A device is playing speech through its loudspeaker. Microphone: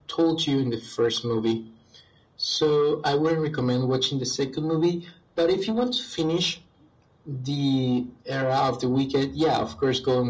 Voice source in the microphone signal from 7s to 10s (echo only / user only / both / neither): echo only